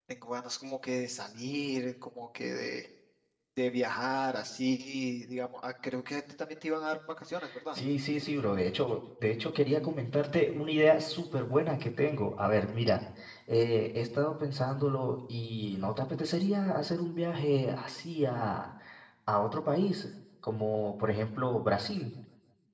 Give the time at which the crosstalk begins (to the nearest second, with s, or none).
none